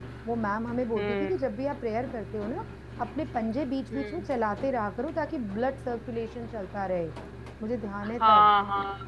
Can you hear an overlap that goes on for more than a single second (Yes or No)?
No